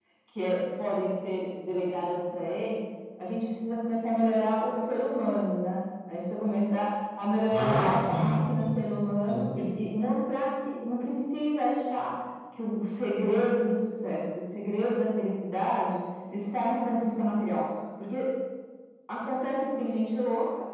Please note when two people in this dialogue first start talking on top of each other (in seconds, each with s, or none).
7.5 s